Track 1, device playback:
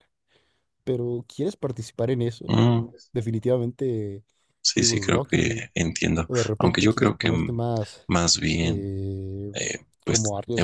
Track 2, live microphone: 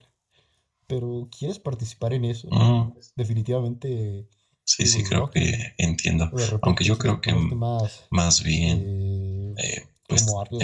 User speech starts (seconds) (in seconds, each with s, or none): none